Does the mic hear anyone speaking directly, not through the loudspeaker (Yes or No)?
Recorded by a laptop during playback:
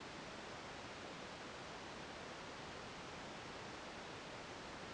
No